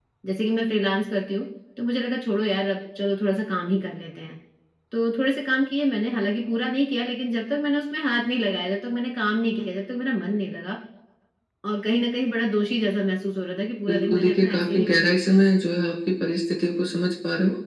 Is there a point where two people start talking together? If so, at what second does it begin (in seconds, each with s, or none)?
13.9 s